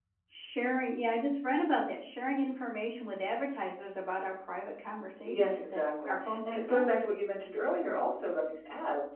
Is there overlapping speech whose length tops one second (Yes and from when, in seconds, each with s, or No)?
Yes, from 5.2 s